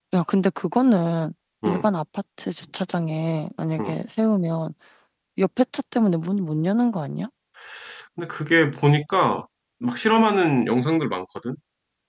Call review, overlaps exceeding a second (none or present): none